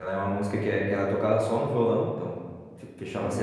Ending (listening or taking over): listening